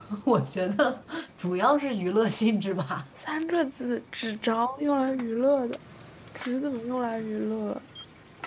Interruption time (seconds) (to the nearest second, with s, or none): none